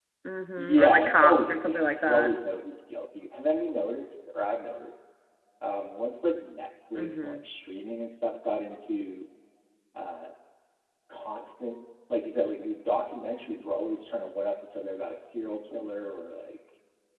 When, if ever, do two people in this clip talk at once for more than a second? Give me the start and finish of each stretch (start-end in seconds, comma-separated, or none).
0.6-2.3